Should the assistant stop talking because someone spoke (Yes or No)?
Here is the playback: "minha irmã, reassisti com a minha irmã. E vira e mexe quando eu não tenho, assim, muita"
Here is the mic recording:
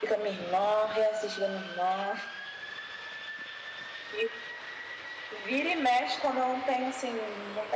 No